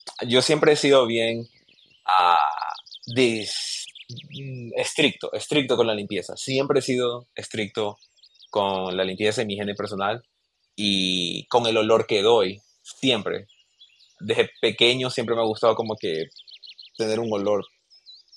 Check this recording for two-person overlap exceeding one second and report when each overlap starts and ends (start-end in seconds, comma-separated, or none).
none